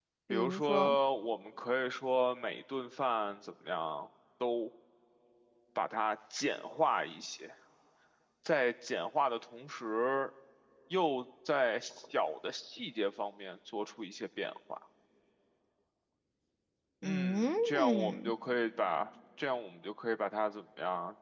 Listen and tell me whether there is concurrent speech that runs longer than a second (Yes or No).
Yes